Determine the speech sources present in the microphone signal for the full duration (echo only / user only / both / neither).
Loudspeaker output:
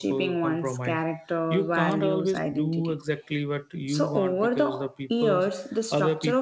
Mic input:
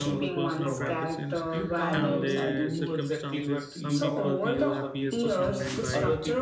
both